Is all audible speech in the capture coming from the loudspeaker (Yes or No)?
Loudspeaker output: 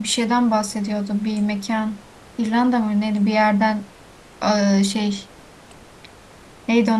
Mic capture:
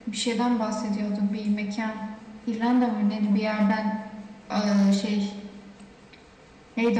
Yes